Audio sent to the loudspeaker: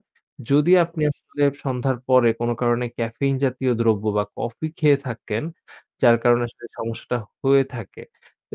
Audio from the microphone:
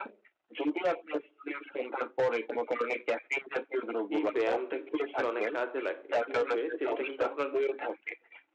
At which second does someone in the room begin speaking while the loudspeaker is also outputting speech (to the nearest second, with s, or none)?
4 s